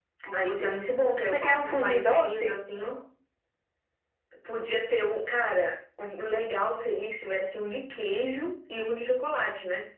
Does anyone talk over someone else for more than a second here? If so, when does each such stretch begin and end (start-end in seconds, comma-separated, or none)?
1.2-2.5